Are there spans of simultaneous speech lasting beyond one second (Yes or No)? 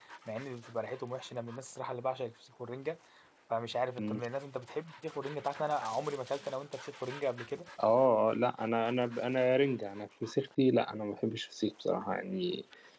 No